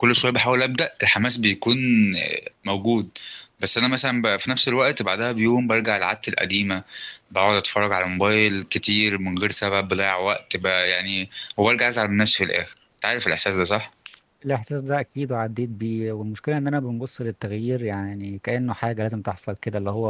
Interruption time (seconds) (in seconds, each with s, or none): none